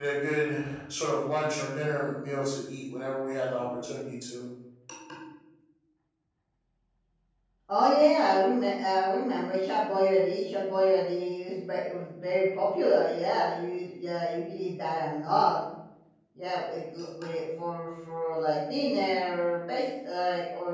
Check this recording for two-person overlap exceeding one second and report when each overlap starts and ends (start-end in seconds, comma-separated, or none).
none